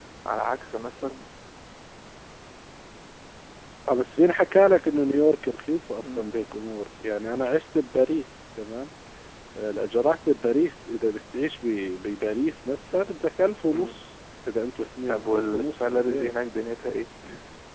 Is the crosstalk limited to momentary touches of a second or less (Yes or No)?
No